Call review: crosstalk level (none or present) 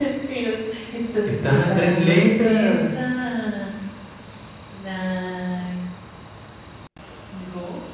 present